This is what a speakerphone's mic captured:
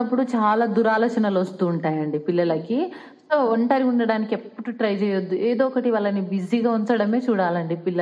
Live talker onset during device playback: none

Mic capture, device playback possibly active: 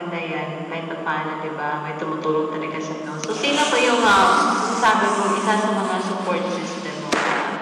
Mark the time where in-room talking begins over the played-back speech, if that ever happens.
none

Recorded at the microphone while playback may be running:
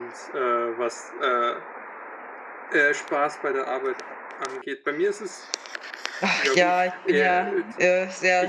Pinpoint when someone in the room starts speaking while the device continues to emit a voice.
6.2 s

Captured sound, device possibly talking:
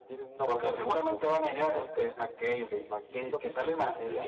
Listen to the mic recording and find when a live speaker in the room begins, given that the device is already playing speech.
none

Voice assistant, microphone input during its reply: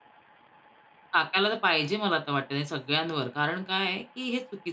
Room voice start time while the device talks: 1.1 s

